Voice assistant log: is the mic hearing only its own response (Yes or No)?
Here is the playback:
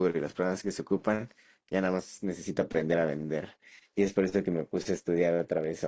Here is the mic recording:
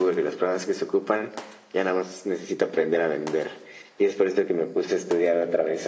Yes